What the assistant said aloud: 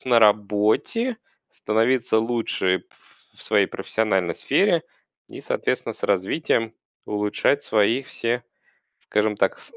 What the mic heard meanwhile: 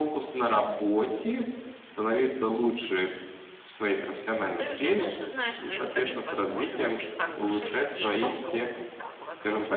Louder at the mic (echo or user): echo